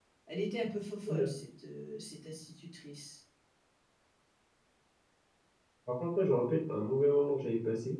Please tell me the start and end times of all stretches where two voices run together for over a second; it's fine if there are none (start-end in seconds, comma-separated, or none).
none